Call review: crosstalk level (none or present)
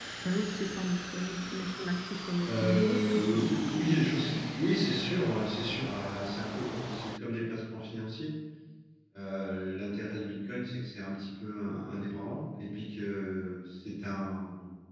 present